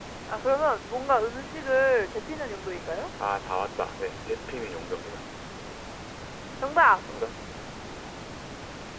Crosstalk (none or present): none